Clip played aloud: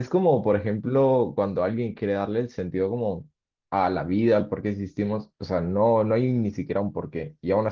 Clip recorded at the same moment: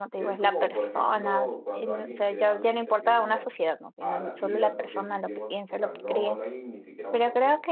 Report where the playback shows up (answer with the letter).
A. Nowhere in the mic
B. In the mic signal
B